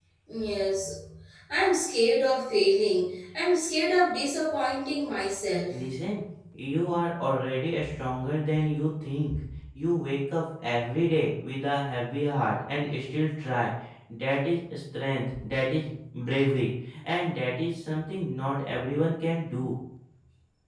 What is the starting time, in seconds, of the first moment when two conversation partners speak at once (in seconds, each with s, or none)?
none